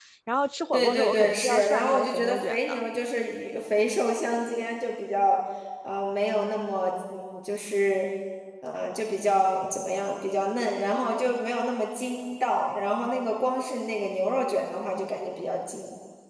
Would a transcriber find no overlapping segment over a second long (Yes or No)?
No